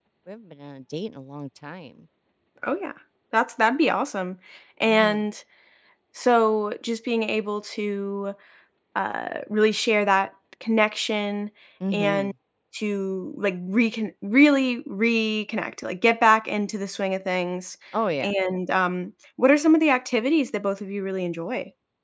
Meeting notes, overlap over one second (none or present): none